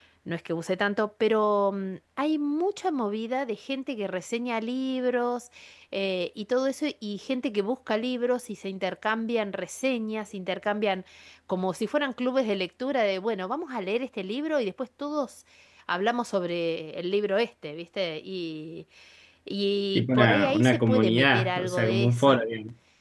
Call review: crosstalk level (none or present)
present